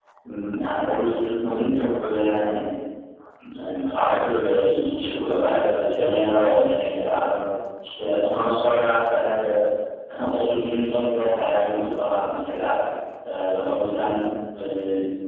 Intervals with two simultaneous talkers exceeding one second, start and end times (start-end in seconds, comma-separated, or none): 6.0-7.2